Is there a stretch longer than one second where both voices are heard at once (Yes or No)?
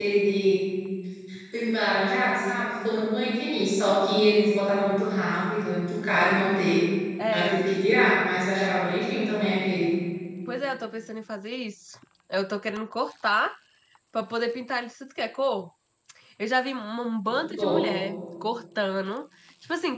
No